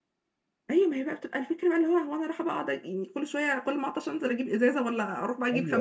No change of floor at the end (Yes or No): No